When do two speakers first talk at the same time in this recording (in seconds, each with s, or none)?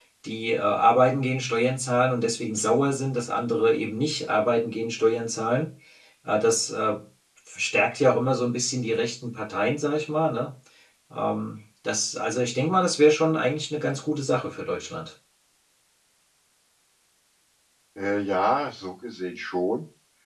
none